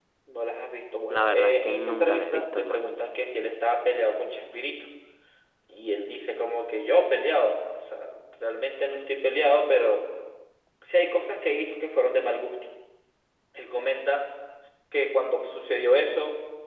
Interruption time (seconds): 1.1 s

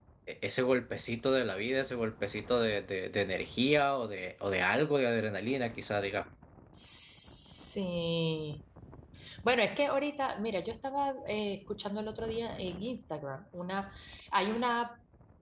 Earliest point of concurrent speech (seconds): none

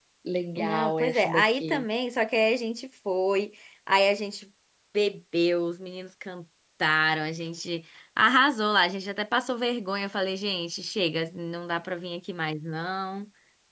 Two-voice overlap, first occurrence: 0.6 s

